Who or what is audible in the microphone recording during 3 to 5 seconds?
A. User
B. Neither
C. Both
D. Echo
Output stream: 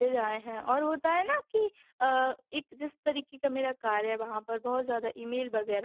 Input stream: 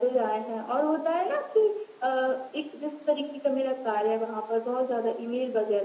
D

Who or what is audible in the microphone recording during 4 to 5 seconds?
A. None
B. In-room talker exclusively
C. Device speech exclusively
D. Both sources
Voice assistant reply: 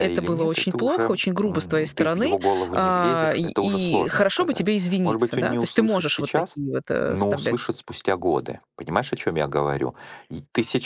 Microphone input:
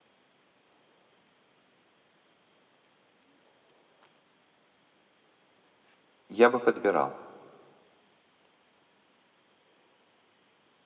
A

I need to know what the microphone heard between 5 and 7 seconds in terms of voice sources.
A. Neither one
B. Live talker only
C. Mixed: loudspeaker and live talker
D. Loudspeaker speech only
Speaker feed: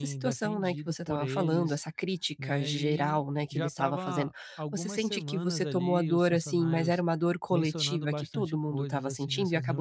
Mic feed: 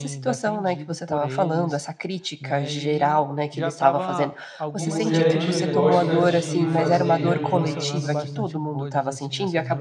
C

